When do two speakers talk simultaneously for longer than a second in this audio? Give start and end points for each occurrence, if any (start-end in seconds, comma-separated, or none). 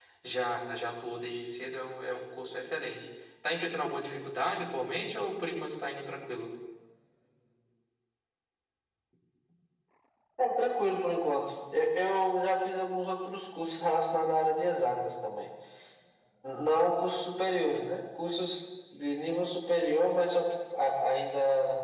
none